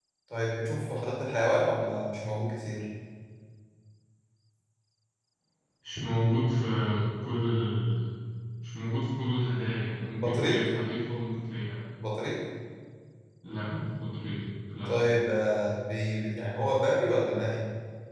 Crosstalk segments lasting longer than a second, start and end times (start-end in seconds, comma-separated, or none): none